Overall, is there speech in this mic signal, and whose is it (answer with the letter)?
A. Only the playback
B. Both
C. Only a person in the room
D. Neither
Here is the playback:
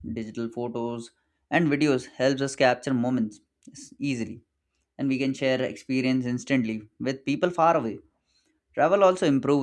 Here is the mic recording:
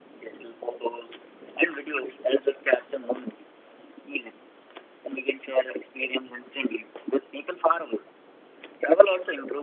A